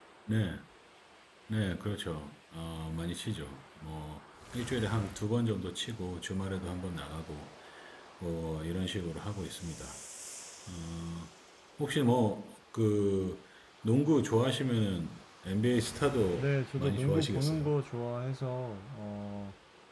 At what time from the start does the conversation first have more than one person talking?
16.4 s

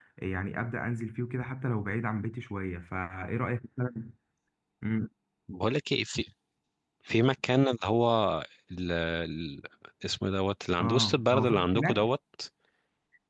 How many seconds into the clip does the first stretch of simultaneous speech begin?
10.8 s

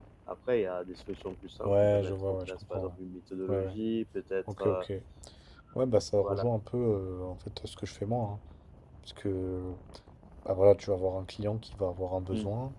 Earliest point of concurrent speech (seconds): 1.6 s

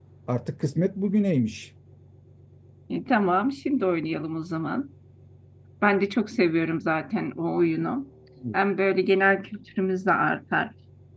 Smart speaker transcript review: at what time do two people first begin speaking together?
none

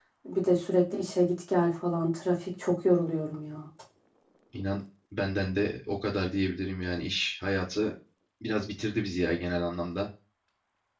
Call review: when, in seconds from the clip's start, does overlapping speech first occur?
none

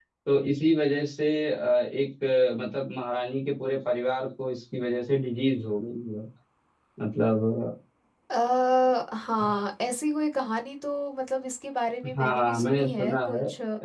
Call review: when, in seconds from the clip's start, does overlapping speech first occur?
12.0 s

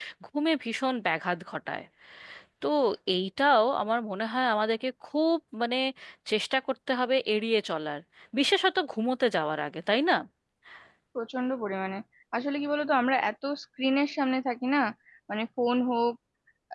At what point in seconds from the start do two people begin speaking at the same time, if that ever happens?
none

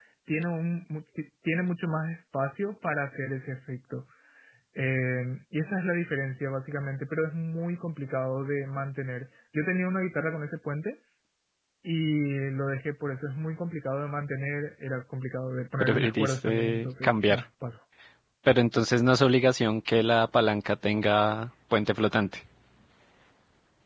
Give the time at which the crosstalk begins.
15.8 s

